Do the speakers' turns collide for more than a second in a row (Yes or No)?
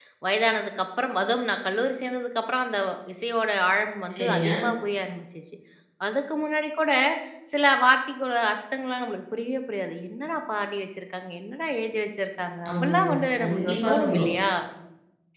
Yes